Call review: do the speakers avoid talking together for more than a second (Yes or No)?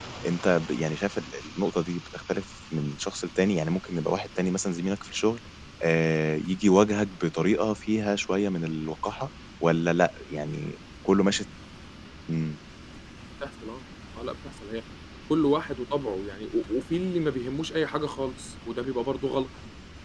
Yes